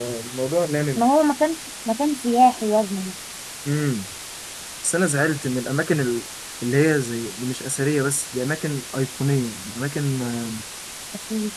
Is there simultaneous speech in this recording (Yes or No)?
No